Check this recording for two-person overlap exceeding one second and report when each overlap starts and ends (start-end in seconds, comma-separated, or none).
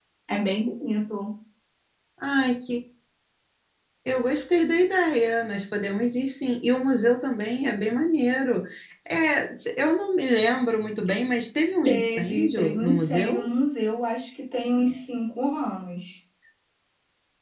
11.8-13.4